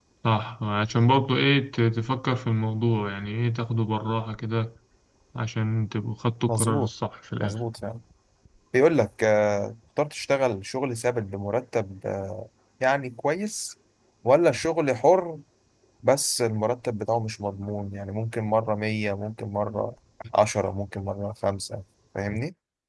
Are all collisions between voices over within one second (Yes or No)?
Yes